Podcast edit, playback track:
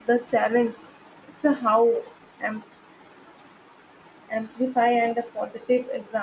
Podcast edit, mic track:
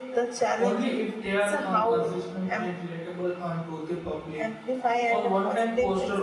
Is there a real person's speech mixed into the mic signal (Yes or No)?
Yes